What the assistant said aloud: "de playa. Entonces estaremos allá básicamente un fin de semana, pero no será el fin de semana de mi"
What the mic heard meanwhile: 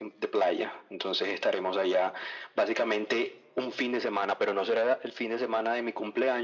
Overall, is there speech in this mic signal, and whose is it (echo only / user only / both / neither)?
echo only